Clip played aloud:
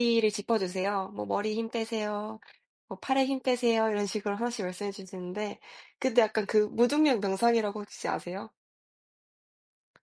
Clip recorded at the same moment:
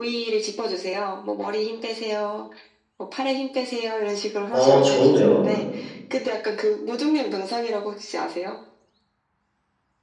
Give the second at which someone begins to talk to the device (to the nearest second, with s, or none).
5 s